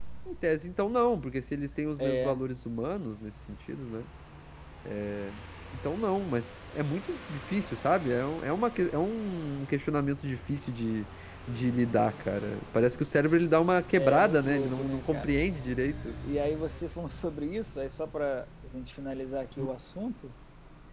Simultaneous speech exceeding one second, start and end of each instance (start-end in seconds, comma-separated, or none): 13.9-15.4